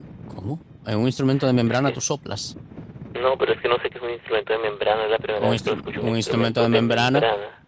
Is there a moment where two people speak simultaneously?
Yes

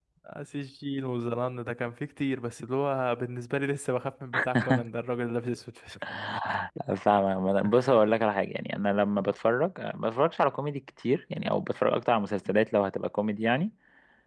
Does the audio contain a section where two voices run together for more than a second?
No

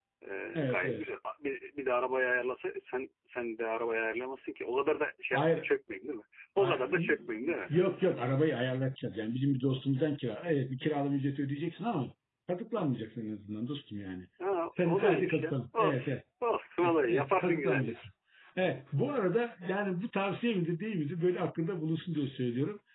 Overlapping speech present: Yes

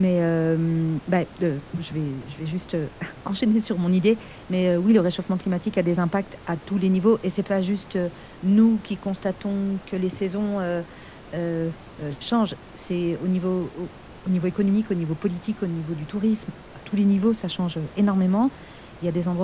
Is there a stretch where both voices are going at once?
No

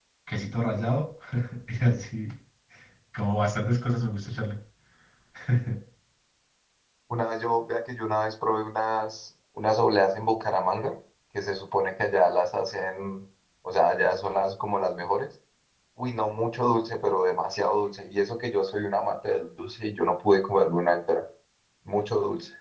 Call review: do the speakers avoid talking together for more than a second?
Yes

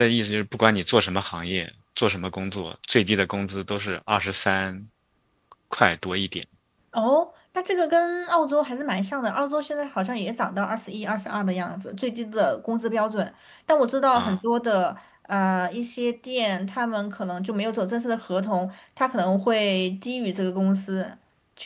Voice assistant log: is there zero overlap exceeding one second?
Yes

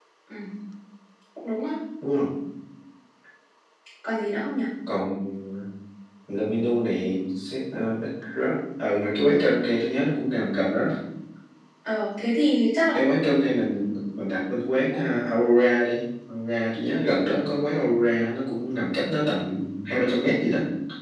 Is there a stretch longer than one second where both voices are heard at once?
No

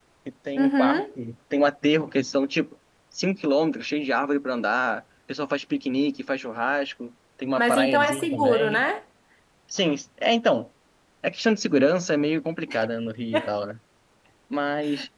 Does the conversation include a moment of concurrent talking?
Yes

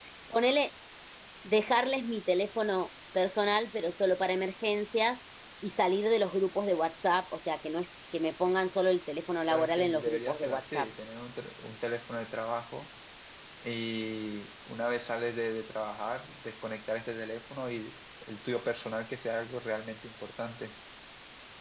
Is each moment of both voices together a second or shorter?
No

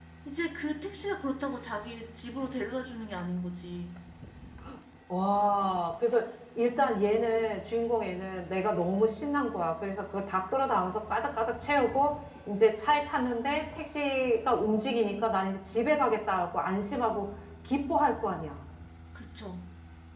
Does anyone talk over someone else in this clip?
No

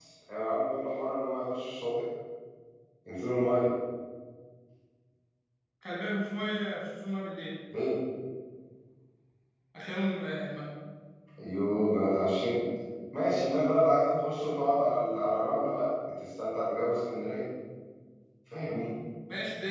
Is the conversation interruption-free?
Yes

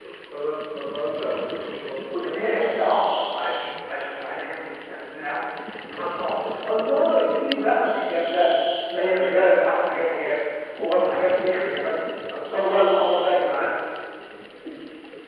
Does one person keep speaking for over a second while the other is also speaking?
No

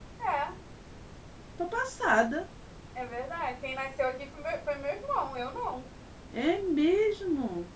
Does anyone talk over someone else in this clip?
No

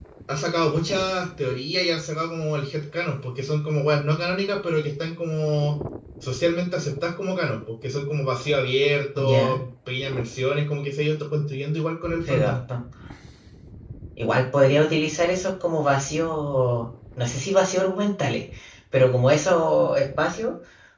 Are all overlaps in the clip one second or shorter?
Yes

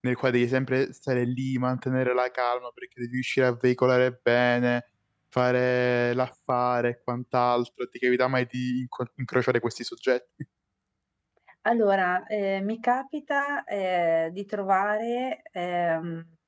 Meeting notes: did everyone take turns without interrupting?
Yes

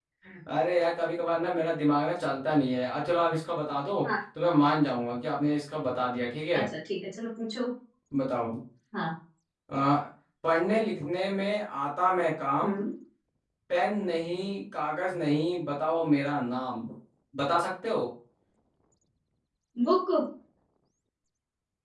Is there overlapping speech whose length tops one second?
No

